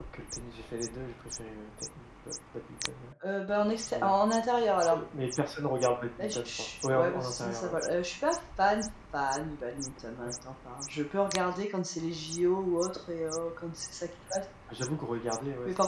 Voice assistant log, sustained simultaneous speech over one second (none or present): present